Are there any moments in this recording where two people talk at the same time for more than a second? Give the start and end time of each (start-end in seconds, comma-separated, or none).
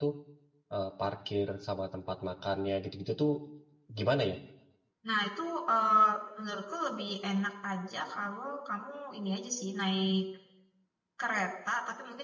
none